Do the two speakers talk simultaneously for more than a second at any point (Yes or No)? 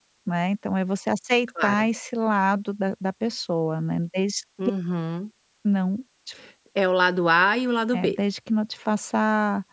No